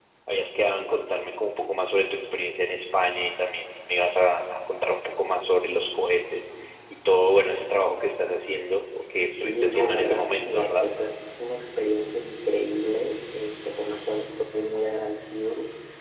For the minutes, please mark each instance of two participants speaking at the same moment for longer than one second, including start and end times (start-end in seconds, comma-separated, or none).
9.4-10.8